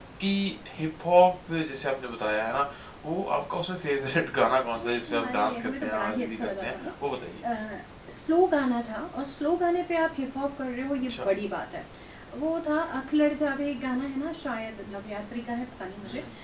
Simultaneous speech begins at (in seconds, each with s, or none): 4.8 s